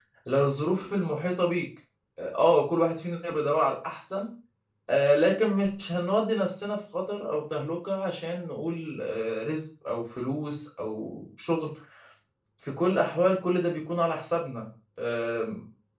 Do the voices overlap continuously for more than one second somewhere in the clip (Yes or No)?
No